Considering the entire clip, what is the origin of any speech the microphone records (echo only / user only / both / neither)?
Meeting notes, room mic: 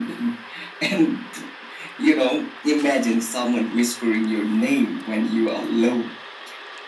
echo only